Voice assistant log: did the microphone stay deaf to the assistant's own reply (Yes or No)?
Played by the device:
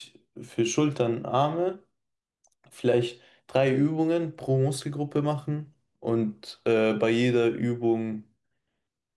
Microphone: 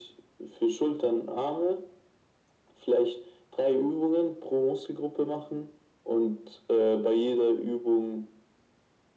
No